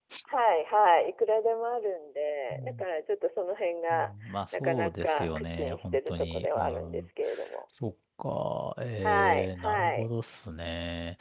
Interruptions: present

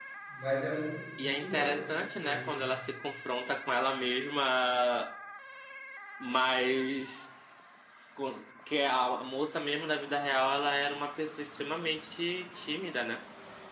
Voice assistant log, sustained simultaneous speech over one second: present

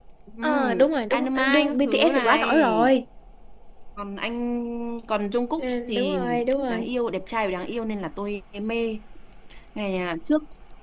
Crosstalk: present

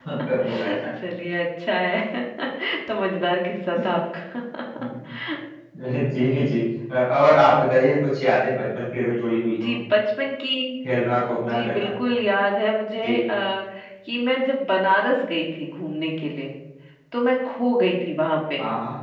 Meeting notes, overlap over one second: none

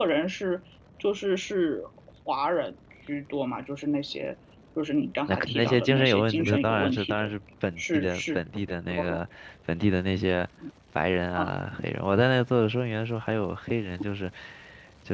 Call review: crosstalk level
present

